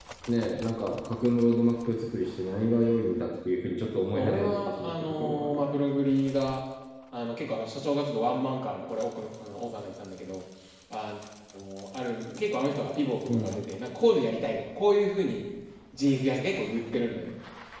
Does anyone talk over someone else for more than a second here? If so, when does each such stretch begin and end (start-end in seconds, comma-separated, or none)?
4.1-5.6